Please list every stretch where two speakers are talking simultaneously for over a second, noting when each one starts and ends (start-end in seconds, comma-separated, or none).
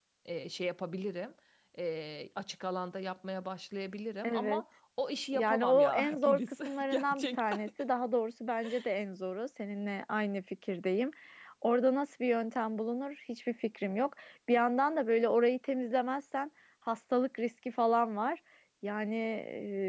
5.3-7.6